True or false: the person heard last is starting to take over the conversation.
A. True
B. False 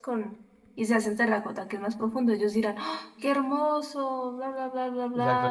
A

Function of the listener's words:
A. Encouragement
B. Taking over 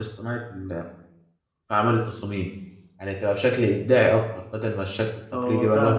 B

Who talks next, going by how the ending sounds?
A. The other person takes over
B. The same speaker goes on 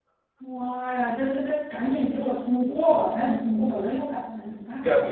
A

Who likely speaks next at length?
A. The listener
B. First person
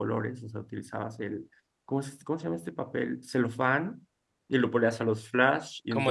B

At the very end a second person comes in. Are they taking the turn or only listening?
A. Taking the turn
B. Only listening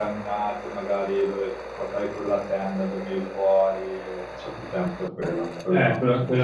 A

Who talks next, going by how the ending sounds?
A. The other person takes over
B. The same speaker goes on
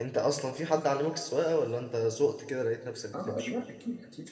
A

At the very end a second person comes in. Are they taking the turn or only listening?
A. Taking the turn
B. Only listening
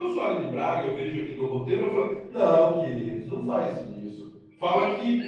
B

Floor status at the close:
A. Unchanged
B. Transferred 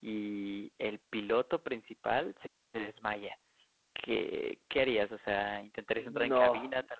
A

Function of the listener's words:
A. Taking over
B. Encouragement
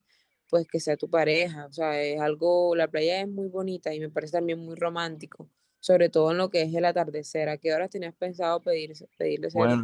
A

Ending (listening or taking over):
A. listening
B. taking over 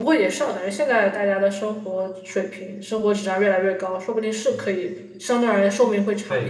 B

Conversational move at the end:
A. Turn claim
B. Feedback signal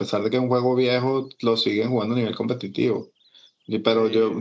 B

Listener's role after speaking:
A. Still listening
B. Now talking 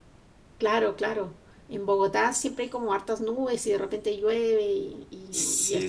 B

